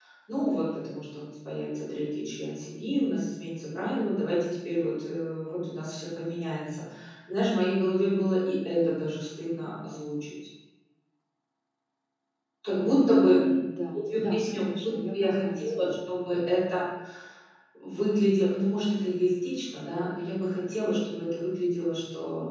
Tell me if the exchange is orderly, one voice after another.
No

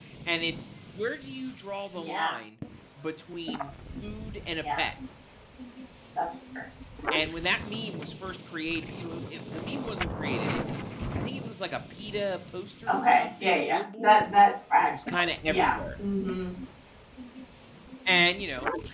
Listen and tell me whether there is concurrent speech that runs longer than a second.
Yes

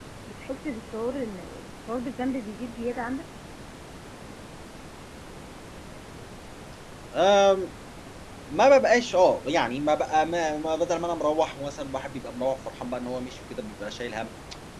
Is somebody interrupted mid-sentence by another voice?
No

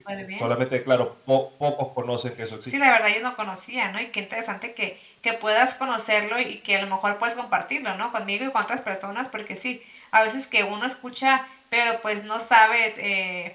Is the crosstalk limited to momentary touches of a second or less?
Yes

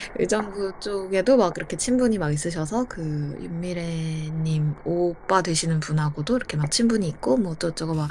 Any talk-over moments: No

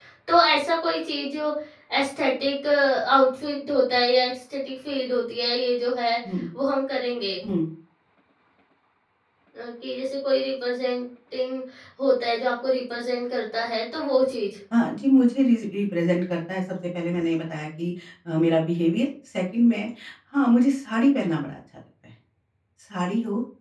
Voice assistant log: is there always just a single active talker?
Yes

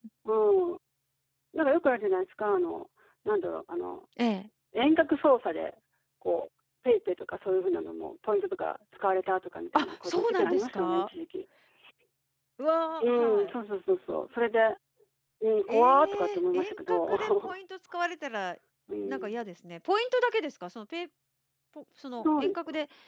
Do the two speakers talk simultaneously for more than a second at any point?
Yes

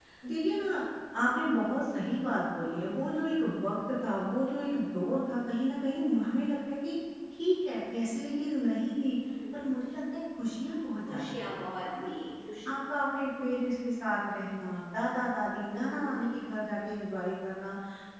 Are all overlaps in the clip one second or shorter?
Yes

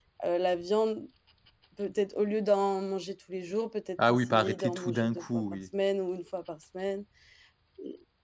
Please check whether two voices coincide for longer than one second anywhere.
Yes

